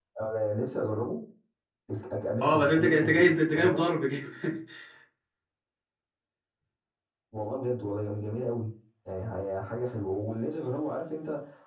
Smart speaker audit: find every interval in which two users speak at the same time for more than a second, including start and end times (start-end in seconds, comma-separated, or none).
2.4-3.9